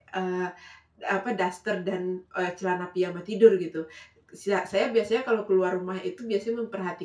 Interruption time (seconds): none

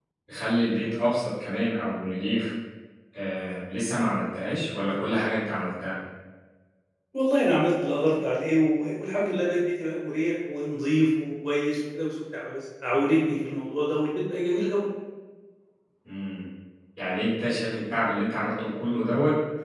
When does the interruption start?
none

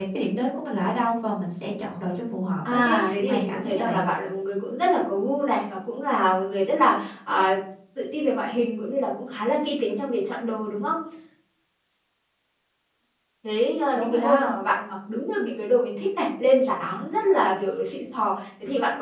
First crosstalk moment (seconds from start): 2.7 s

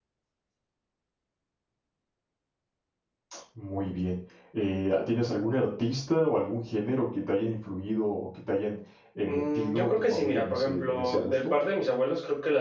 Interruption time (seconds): 9.2 s

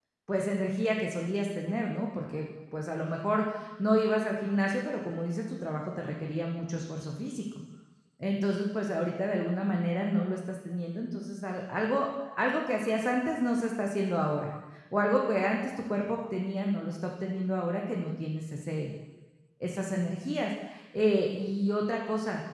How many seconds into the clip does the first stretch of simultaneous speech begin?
none

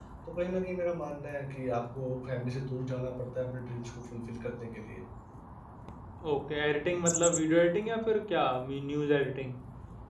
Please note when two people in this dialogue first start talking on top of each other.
none

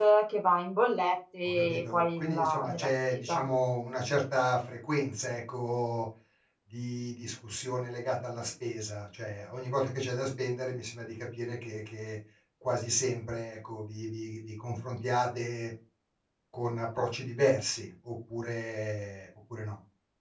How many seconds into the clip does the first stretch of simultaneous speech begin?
1.4 s

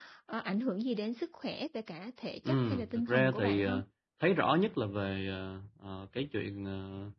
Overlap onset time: 2.5 s

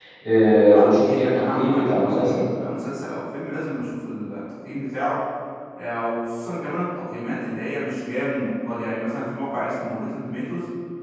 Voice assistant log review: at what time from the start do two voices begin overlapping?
0.7 s

